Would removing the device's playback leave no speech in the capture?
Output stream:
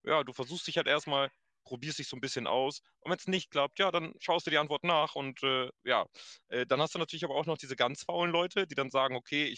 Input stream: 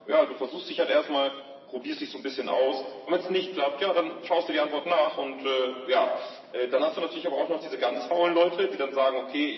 Yes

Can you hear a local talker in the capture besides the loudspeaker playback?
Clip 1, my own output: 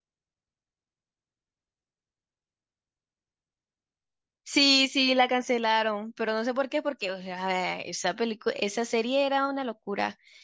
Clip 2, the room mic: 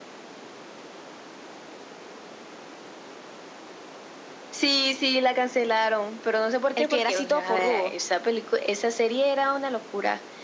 Yes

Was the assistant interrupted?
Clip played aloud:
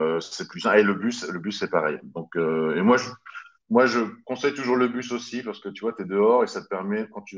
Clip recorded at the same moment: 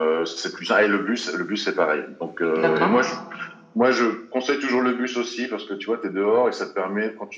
Yes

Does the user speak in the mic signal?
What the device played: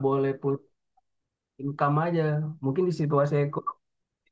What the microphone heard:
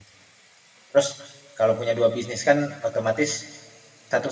Yes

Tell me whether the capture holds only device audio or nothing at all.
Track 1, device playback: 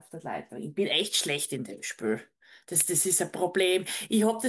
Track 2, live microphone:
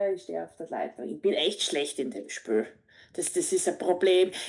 Yes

